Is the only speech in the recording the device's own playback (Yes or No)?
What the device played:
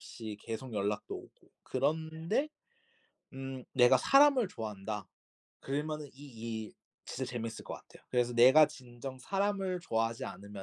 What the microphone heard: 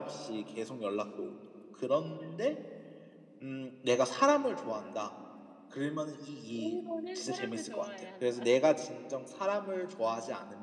No